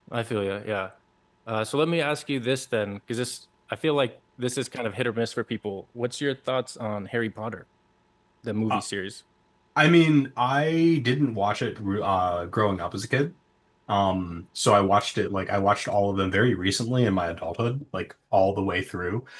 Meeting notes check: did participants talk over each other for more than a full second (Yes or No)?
No